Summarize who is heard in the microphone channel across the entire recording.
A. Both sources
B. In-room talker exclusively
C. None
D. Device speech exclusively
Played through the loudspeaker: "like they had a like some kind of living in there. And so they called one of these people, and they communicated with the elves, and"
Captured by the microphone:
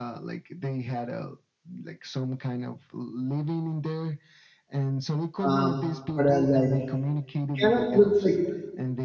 A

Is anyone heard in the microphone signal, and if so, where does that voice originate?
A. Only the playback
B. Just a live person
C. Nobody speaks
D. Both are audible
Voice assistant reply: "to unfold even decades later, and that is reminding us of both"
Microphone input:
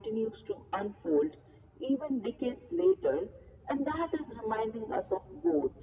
A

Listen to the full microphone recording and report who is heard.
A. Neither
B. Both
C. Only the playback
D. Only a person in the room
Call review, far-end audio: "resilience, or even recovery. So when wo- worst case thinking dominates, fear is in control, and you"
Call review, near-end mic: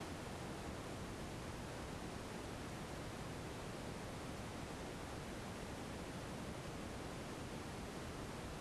A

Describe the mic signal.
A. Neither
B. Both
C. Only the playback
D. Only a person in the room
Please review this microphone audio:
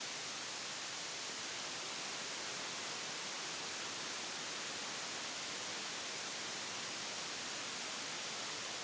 A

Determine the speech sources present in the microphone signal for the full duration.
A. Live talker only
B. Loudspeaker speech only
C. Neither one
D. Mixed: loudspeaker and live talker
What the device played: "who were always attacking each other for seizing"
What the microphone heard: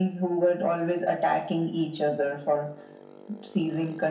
B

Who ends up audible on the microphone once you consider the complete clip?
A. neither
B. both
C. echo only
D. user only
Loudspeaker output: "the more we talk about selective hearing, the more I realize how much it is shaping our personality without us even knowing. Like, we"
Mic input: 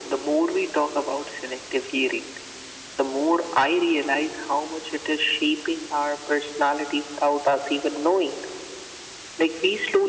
C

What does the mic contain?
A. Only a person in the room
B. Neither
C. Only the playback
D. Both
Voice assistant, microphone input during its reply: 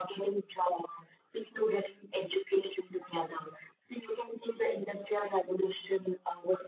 C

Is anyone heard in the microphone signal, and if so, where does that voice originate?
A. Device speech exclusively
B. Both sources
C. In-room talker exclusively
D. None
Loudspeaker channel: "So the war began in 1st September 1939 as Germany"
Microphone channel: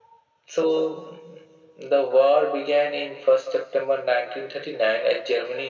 A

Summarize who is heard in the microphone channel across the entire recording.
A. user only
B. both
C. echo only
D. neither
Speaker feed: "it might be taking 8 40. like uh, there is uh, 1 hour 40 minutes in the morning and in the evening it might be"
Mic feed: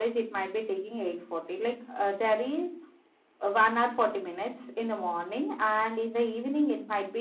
C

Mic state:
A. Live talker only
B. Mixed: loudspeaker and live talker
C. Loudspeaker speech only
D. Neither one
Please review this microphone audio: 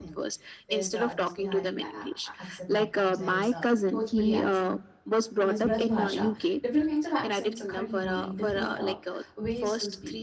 B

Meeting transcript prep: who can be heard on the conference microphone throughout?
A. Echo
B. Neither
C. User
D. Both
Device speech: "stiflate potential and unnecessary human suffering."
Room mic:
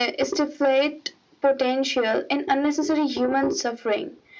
A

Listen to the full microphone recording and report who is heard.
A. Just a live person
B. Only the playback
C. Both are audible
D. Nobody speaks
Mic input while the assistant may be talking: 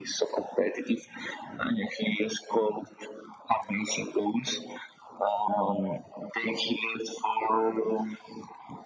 B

